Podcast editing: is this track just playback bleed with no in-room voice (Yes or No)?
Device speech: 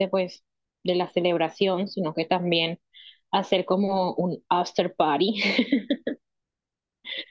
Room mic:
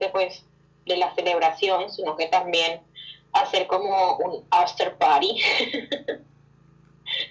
Yes